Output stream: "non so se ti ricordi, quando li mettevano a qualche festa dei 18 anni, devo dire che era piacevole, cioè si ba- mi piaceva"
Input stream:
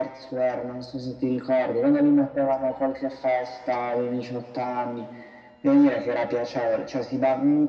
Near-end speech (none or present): none